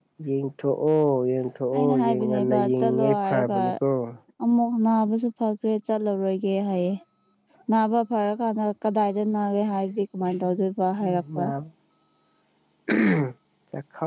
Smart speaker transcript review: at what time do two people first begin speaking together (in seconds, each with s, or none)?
1.7 s